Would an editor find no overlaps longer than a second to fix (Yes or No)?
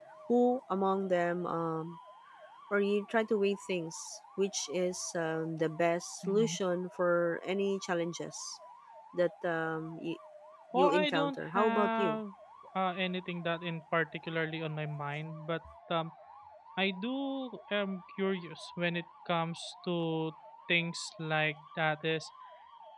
No